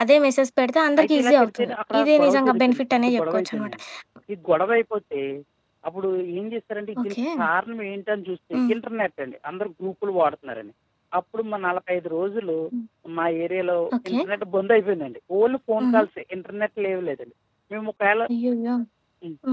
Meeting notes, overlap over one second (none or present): present